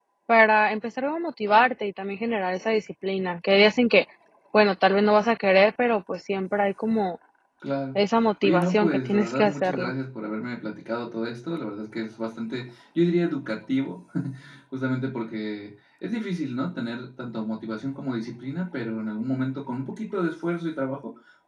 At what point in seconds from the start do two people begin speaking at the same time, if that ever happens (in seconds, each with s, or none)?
8.4 s